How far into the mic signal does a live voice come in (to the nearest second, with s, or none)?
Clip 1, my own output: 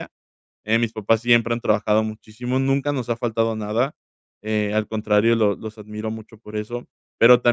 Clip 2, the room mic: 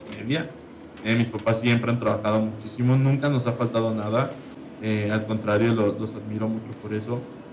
none